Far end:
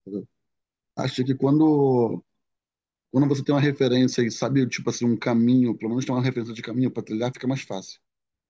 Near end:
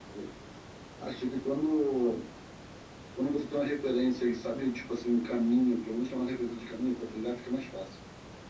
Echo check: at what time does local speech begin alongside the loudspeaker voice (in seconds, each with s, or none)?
none